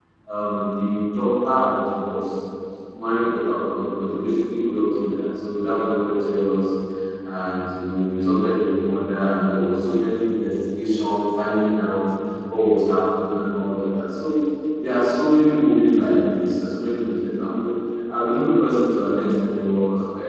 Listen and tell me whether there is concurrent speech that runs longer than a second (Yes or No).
No